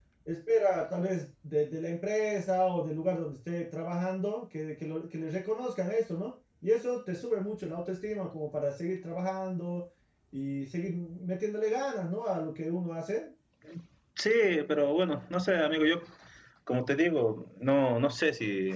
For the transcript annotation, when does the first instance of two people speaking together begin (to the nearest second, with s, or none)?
none